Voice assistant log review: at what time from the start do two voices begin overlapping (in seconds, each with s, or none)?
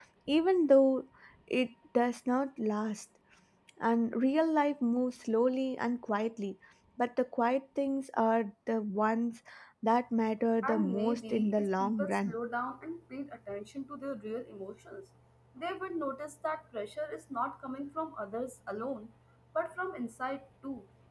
10.6 s